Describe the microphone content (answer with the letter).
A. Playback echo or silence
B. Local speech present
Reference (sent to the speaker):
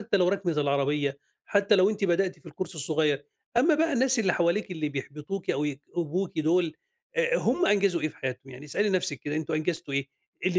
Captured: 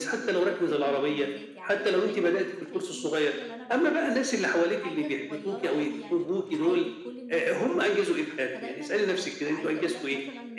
B